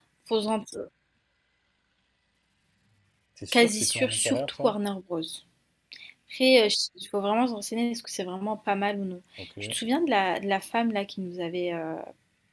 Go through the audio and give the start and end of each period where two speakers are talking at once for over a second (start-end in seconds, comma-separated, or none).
3.5-4.8